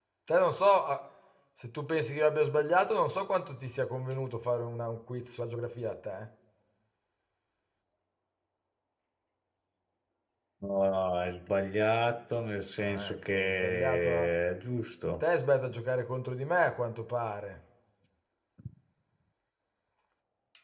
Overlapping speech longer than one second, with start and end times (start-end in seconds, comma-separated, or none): 12.8-14.3